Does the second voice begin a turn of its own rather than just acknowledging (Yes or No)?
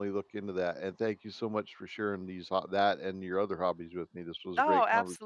Yes